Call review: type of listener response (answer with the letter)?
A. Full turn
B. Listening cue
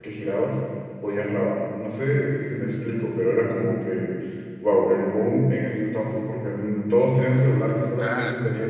B